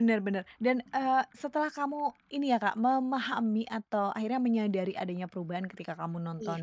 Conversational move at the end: listening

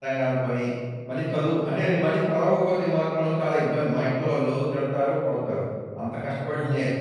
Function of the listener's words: listening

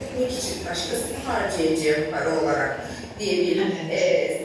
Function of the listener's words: listening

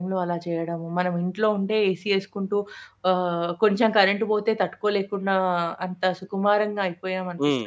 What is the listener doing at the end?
listening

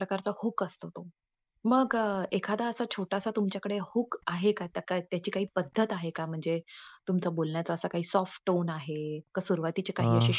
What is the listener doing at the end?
listening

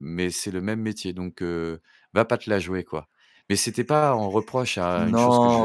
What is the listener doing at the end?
taking over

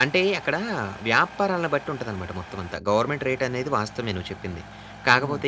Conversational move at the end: listening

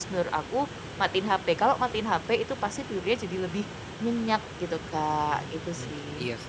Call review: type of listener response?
taking over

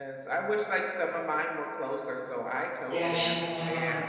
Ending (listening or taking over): taking over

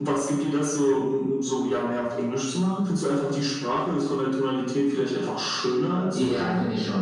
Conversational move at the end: taking over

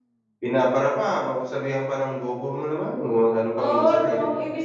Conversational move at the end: taking over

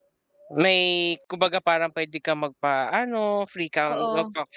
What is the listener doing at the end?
listening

